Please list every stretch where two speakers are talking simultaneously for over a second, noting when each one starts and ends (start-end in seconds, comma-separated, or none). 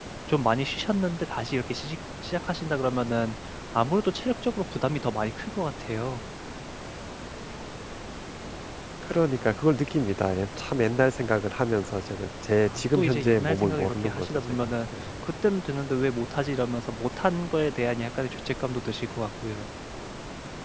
12.7-14.7